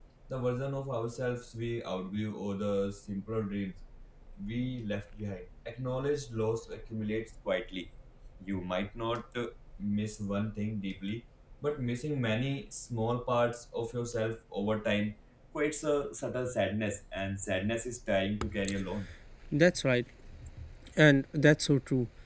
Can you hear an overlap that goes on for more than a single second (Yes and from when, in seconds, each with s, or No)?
No